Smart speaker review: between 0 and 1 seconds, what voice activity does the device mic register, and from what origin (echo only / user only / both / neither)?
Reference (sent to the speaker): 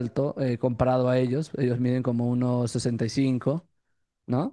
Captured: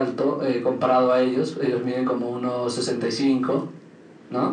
echo only